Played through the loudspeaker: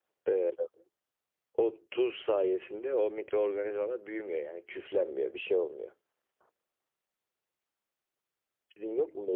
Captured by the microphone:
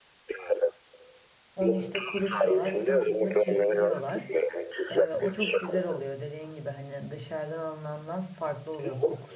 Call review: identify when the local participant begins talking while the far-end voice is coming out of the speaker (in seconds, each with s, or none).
1.6 s